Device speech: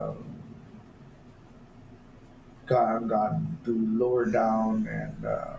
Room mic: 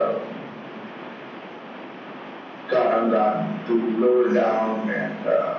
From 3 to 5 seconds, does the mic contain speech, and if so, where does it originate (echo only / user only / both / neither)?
echo only